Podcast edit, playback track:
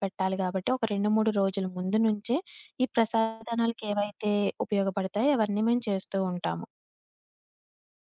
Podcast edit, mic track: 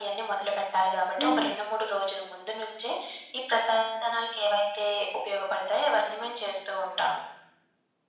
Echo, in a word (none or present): present